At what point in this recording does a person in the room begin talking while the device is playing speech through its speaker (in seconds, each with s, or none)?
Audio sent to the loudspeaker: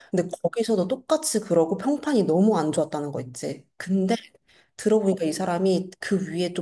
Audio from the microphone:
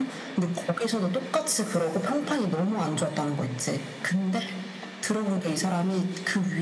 none